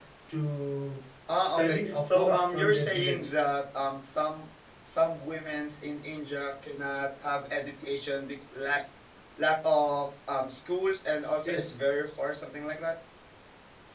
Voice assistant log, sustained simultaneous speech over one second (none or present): present